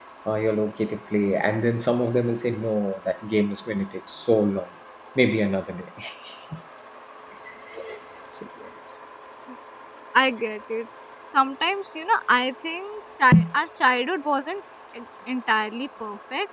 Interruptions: none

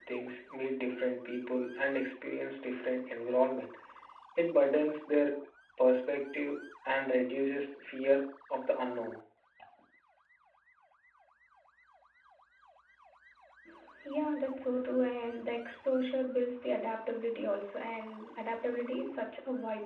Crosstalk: none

